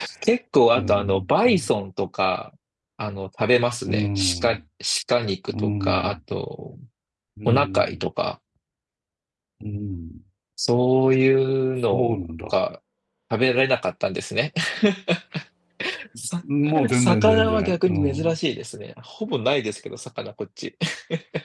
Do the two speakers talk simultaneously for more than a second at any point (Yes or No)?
Yes